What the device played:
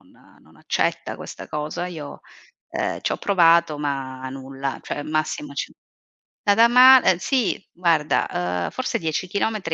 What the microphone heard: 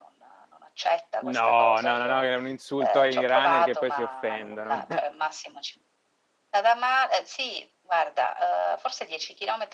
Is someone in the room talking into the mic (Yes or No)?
Yes